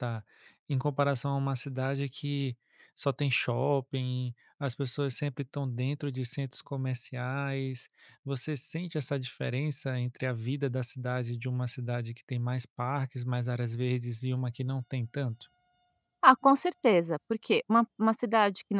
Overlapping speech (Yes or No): No